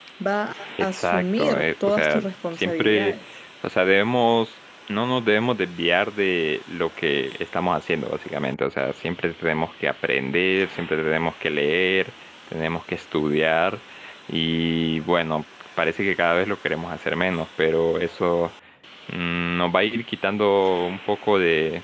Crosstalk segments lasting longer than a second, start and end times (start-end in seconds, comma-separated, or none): 0.9-3.2